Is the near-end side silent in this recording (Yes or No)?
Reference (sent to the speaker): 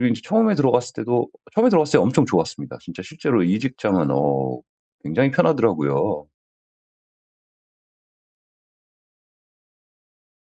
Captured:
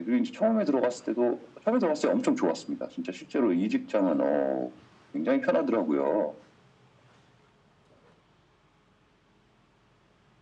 Yes